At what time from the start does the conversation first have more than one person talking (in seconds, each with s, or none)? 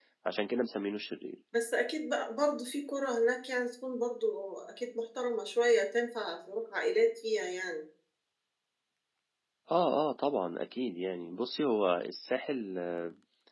none